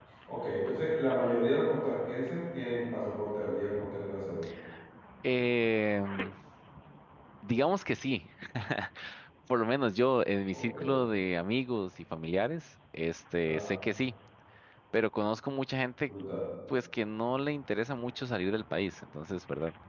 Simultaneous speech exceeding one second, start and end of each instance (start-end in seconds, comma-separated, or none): none